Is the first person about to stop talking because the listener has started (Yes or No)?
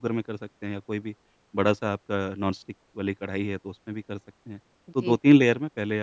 No